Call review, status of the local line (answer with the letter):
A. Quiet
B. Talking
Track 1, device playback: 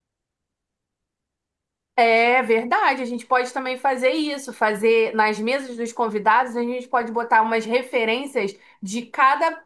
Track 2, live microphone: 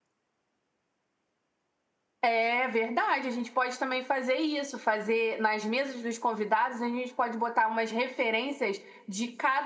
A